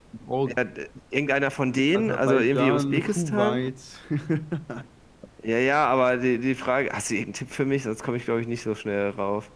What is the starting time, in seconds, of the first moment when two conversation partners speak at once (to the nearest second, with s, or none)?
2 s